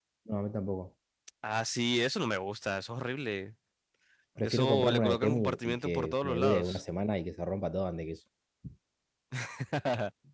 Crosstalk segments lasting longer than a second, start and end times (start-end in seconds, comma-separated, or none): 4.4-6.8